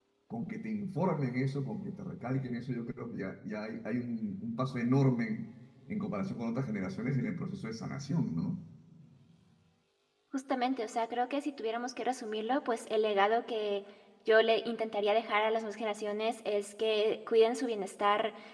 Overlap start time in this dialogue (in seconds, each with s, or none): none